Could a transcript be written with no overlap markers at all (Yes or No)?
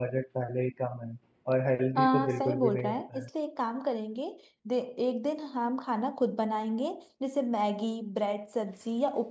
No